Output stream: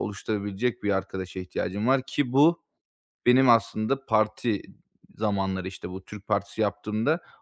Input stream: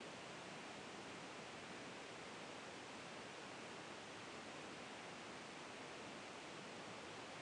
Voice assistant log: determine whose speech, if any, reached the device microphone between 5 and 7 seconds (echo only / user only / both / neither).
neither